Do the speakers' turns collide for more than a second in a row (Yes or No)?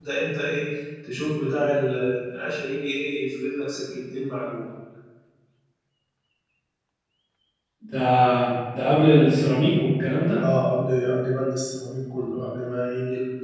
No